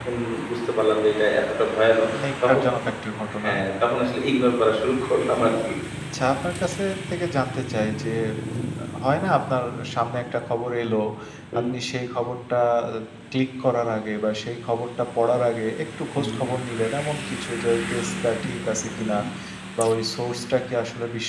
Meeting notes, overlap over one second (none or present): none